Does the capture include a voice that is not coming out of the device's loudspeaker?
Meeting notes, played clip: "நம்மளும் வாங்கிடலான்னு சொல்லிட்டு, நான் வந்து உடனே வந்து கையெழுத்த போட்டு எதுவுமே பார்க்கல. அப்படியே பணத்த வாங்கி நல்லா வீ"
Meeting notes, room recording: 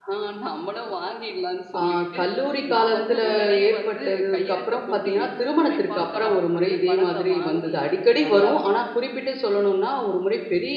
Yes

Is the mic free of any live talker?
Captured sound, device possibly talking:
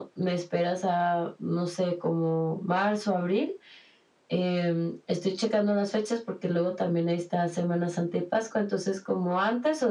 Yes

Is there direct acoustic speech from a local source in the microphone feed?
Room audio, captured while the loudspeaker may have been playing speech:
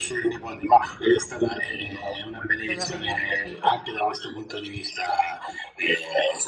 Yes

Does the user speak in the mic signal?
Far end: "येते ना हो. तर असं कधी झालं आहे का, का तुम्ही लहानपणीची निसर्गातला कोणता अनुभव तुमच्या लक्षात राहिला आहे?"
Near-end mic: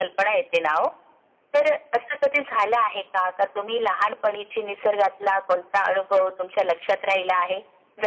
No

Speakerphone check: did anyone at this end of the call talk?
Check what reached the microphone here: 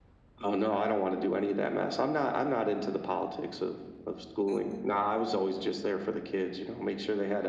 Yes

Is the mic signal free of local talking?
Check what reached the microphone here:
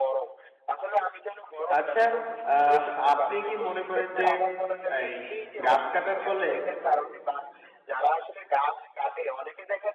No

